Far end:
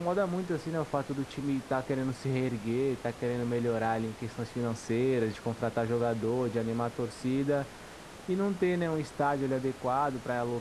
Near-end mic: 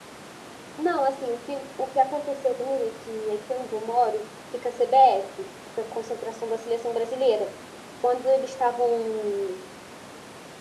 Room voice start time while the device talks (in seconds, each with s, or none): 0.8 s